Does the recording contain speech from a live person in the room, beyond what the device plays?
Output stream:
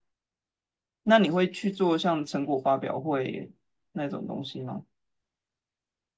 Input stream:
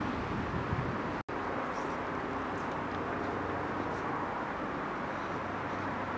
No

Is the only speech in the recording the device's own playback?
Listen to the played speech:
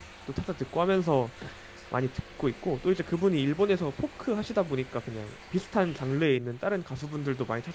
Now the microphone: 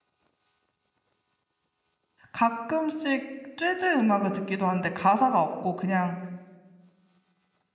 No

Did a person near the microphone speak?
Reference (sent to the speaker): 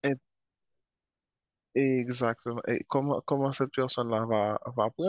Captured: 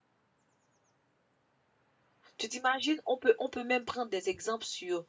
Yes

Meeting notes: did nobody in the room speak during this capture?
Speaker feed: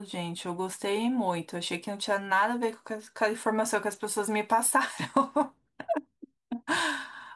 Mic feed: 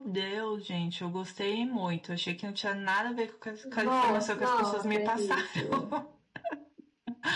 No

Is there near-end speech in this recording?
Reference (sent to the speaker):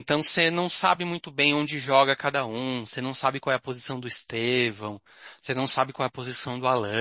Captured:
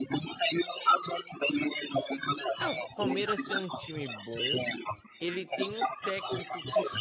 Yes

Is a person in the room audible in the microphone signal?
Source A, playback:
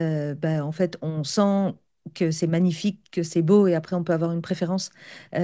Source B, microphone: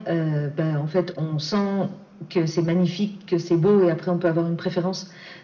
No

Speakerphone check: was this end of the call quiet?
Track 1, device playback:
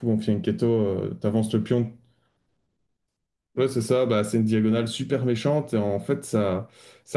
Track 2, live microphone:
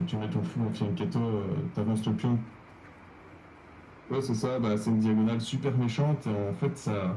Yes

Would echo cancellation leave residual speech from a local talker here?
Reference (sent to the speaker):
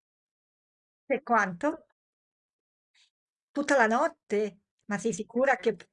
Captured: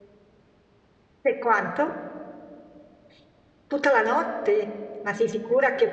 No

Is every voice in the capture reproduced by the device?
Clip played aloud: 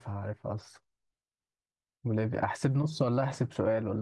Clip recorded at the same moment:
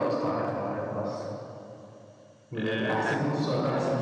No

